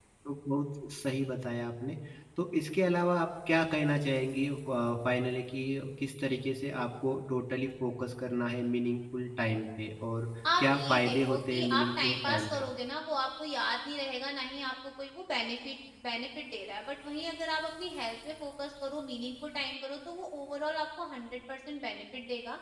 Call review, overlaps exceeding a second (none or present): present